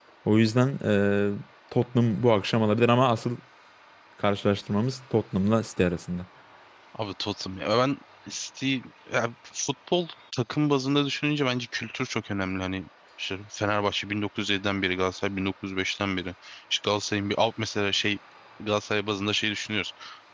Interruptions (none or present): none